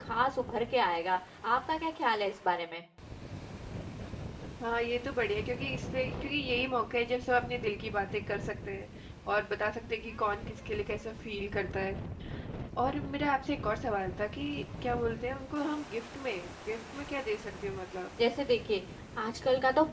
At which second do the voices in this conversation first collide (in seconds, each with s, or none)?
none